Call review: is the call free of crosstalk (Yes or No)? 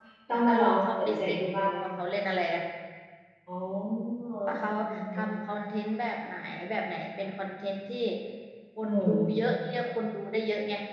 No